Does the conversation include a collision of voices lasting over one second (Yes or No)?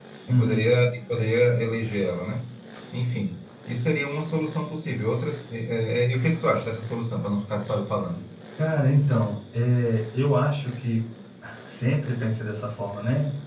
No